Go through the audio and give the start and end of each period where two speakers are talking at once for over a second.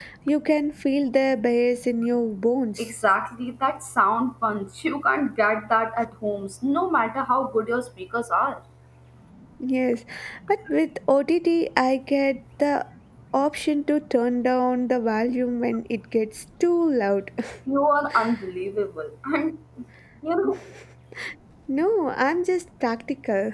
none

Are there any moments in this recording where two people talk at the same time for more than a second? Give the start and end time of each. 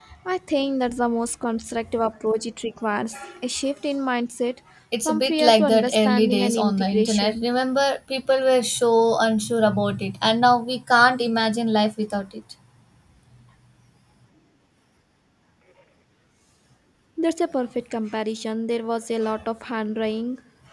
5.0-7.5

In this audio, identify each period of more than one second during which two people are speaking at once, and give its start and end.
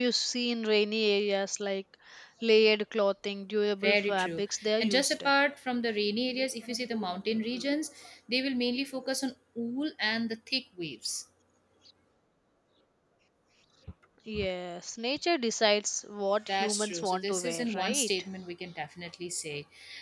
3.8-5.1, 16.5-18.1

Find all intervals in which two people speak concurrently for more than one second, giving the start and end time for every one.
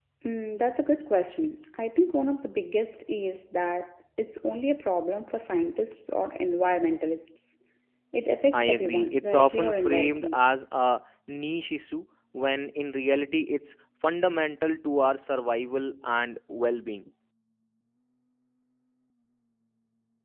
8.5-10.4

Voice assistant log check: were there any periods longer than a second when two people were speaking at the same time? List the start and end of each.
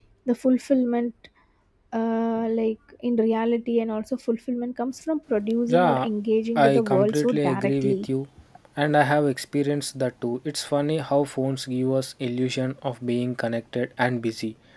6.6-8.1

